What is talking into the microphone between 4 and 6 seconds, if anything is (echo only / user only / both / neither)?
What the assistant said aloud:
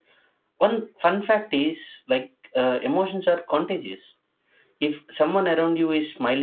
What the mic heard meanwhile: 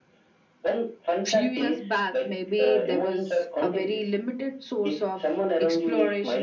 both